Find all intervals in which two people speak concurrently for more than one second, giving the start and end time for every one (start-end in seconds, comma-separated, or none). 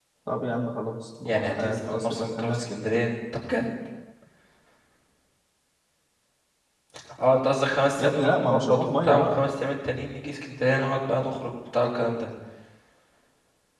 1.2-3.1, 8.0-9.5